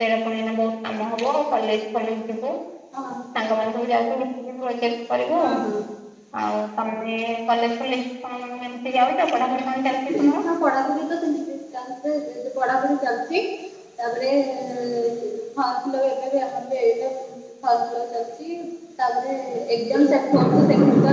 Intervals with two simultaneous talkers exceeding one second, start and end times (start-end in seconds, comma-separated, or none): none